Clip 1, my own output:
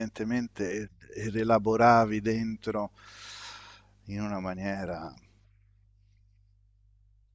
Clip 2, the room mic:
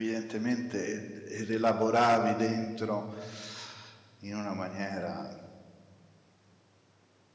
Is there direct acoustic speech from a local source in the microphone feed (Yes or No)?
No